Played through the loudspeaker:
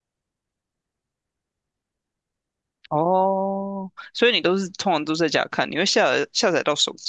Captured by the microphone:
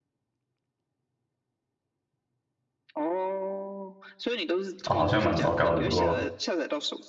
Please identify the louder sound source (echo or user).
user